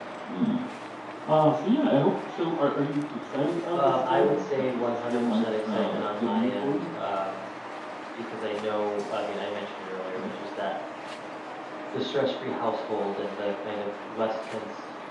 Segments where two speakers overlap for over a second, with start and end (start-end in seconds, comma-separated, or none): 3.7-6.9